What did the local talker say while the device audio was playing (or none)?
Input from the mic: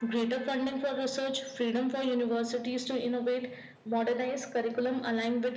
none